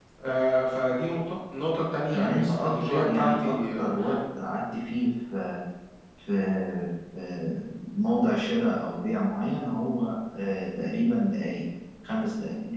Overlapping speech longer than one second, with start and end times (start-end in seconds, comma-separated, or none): 2.1-3.9